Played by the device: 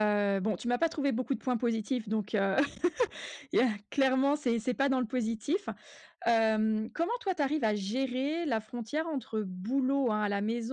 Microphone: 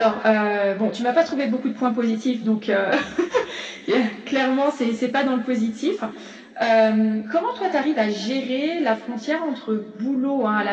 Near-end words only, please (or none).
none